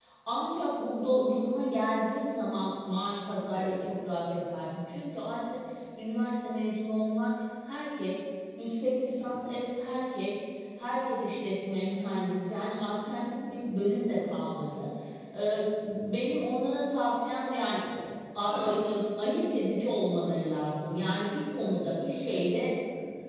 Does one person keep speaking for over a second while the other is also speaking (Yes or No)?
No